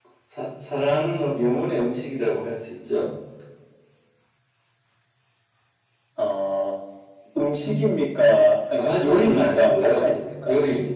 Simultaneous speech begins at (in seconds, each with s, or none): 8.8 s